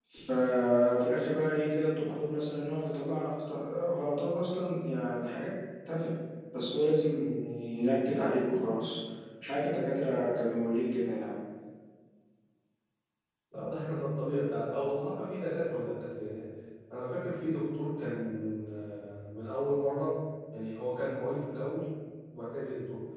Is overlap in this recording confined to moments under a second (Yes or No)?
Yes